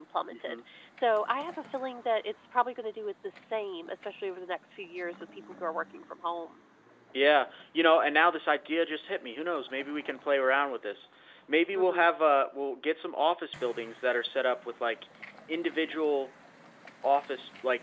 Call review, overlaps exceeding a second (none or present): none